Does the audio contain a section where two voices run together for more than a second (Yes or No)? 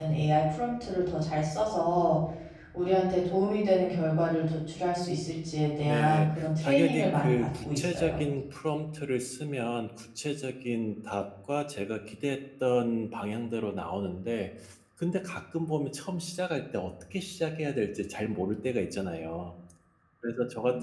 Yes